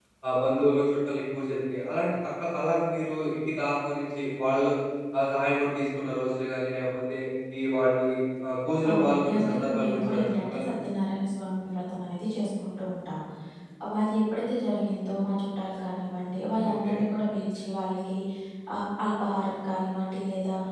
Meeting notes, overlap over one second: present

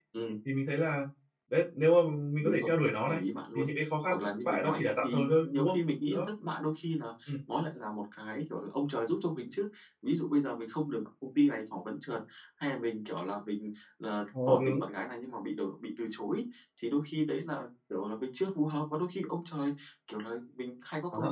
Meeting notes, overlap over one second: present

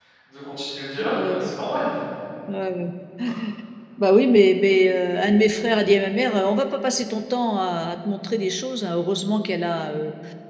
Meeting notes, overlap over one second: none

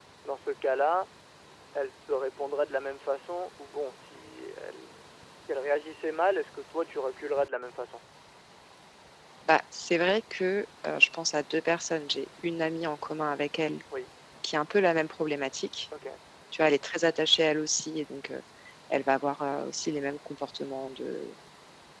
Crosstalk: none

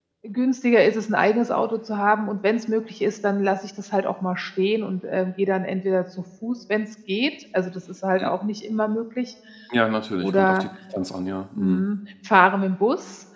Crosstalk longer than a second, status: none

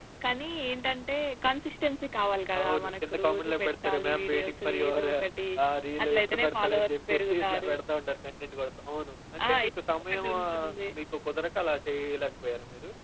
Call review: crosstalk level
present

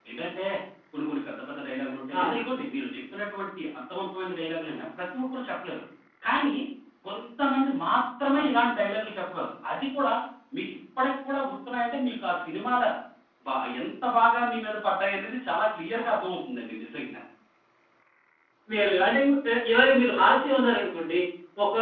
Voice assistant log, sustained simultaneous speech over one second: none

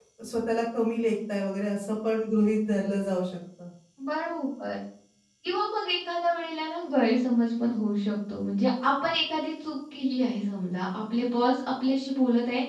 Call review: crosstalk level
none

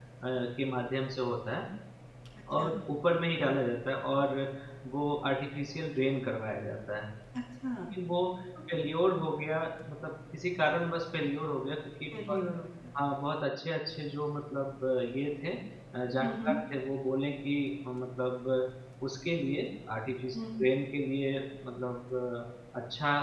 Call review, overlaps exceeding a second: none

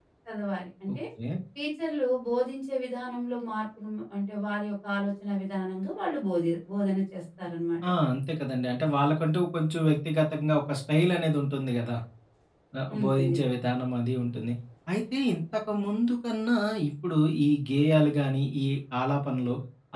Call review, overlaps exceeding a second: none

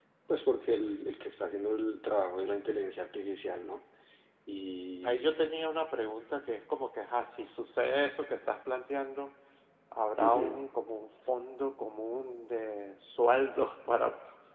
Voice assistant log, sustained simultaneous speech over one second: none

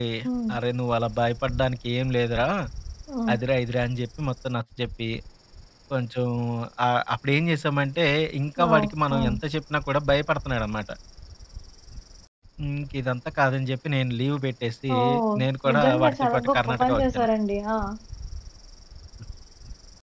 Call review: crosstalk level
present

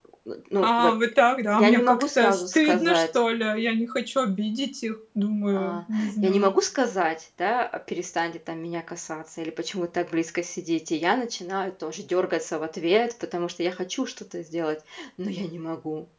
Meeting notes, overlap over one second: present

